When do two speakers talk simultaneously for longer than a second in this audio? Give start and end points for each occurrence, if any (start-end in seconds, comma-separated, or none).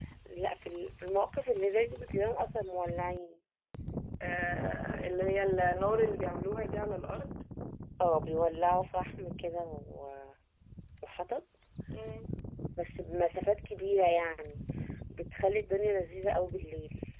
none